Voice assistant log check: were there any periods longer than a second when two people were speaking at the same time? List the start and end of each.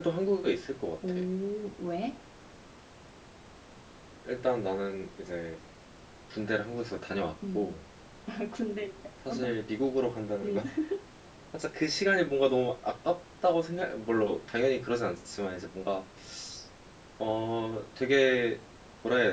none

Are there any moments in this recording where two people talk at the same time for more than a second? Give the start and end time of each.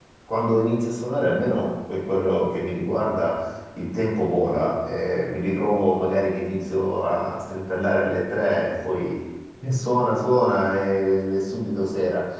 none

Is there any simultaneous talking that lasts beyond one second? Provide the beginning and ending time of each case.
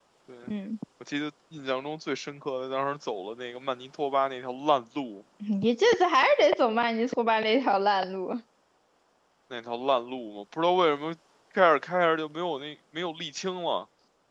none

